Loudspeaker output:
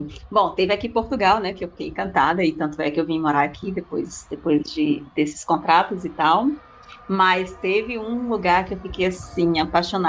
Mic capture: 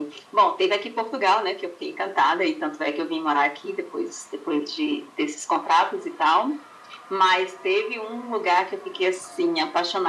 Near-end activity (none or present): none